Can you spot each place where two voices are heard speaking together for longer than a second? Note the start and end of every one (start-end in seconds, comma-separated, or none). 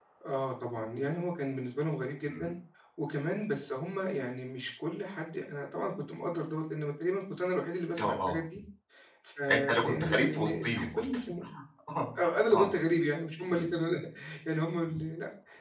9.5-11.2